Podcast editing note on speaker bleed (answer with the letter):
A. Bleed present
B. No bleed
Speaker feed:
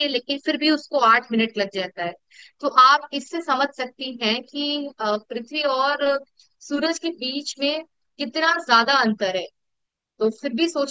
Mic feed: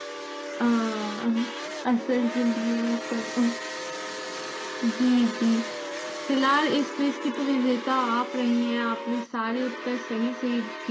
B